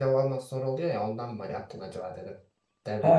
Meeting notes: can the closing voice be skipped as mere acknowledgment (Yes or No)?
No